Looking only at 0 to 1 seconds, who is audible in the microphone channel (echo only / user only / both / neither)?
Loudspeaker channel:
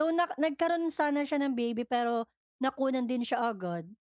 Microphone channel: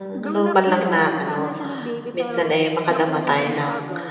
both